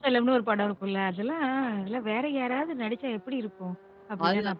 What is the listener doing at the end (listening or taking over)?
taking over